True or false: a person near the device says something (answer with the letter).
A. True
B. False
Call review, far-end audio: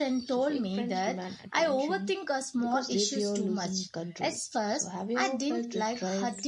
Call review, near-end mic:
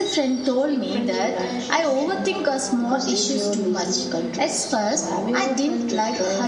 A